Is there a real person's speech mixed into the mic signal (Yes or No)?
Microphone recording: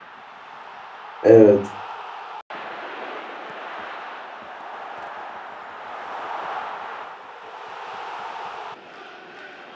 Yes